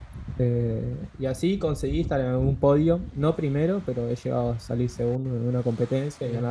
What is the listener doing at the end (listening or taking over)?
listening